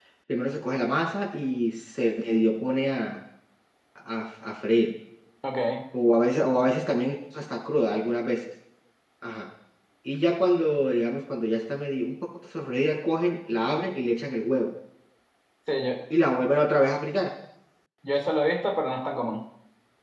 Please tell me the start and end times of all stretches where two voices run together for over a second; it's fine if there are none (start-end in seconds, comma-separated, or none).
none